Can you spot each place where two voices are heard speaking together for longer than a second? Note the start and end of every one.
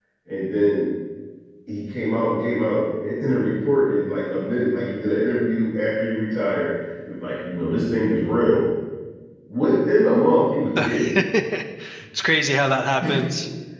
none

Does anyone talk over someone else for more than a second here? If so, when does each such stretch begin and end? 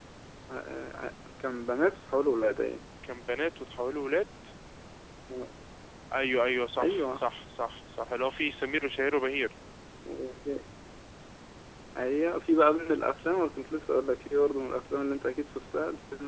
none

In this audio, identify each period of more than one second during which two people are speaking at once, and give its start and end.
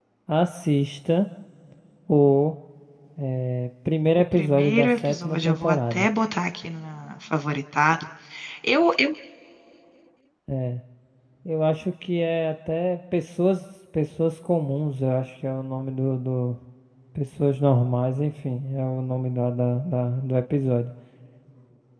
4.3-6.1

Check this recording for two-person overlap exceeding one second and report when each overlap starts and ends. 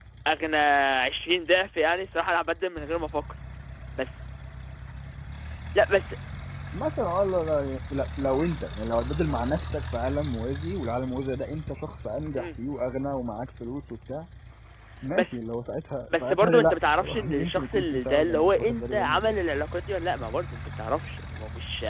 16.1-19.4

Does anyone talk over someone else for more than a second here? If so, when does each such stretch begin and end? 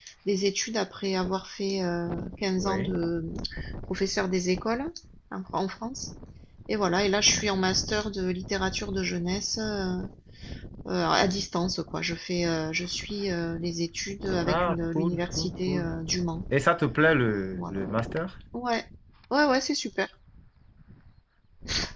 14.5-15.9

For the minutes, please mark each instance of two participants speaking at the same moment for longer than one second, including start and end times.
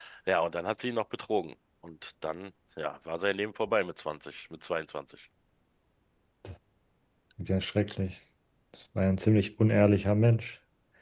none

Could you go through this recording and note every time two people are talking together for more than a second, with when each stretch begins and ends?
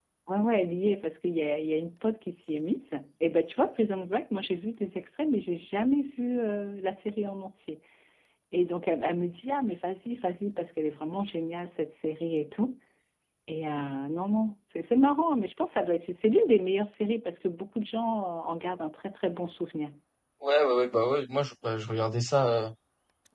none

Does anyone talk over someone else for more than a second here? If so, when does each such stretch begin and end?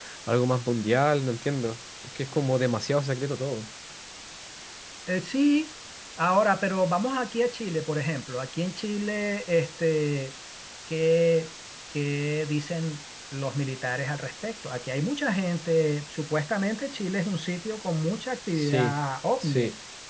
none

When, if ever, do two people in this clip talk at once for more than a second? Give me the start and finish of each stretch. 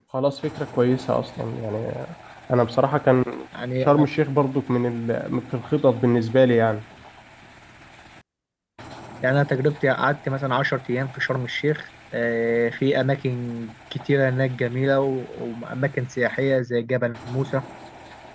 none

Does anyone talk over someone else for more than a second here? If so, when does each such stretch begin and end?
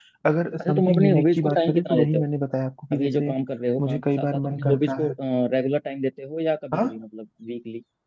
0.6-2.2, 3.9-5.1

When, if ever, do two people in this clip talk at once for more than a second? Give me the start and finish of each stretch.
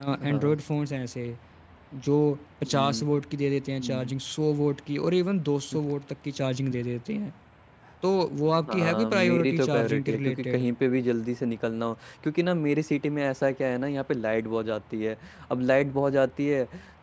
8.7-10.6

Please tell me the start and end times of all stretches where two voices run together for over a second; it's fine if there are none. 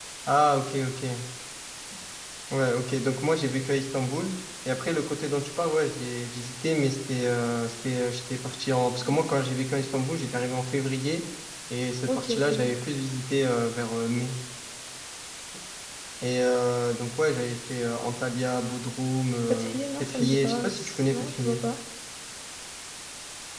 19.5-21.6

